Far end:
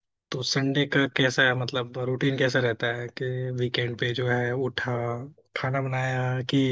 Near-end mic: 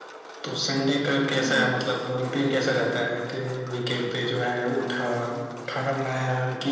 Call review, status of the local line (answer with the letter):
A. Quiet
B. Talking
B